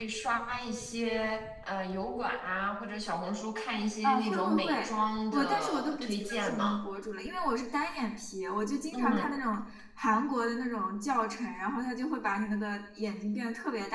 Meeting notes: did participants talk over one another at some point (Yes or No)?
Yes